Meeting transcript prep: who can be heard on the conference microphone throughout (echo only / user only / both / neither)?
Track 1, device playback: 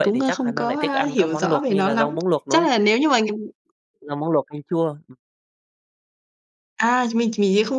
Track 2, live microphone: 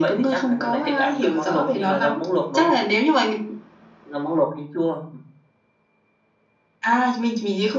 echo only